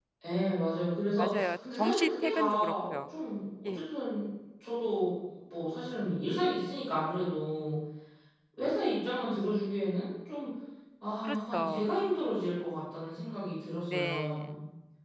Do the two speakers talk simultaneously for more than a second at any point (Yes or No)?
Yes